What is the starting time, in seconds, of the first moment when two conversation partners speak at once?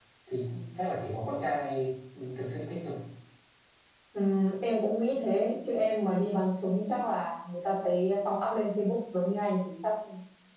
none

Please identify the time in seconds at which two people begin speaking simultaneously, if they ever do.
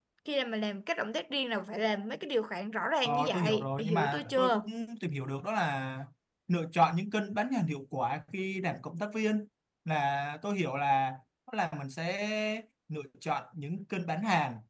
3.0 s

